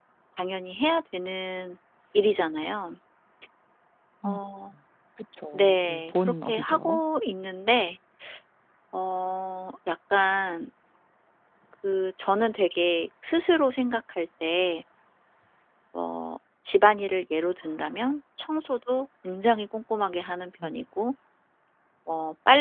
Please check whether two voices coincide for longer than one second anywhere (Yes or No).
Yes